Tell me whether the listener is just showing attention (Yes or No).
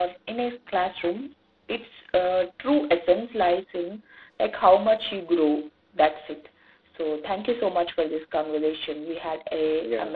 Yes